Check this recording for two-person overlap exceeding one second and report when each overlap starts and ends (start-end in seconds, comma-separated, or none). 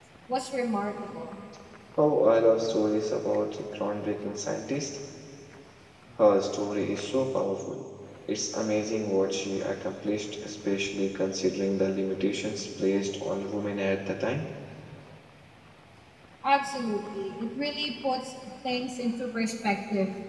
none